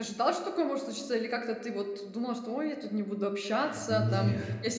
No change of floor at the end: Yes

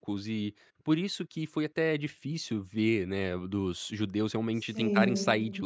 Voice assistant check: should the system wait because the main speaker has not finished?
Yes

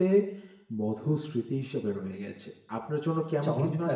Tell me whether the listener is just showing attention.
No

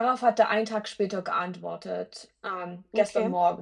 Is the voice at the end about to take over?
No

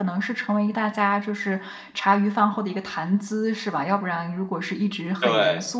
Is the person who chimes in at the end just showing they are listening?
Yes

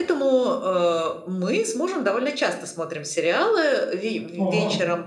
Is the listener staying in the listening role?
Yes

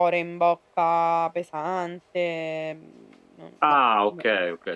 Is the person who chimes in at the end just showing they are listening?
No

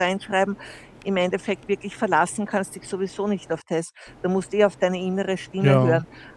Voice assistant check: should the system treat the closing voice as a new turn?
No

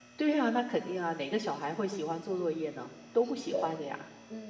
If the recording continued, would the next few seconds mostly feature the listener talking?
Yes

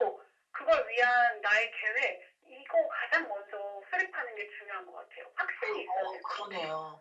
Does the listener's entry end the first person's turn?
Yes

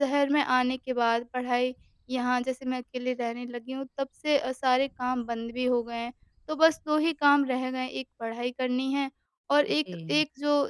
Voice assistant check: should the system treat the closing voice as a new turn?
No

